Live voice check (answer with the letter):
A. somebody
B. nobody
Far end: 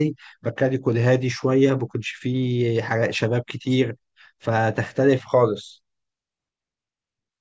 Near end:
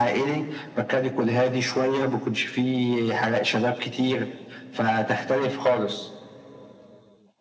B